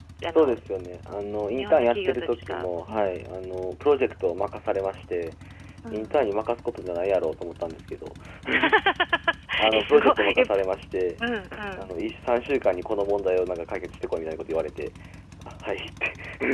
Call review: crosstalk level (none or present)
present